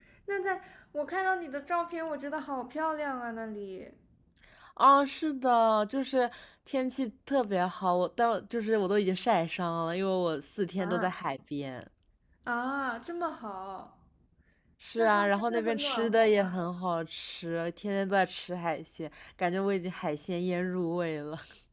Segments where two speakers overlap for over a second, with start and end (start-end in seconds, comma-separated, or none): 15.0-16.6